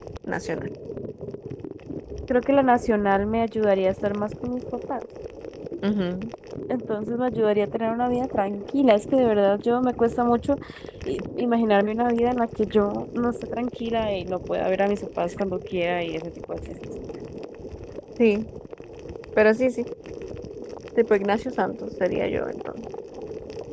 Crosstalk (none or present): none